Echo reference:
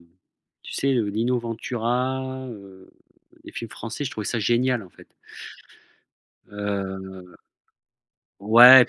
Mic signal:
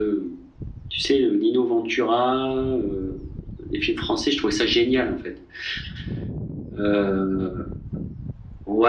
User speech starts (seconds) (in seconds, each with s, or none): none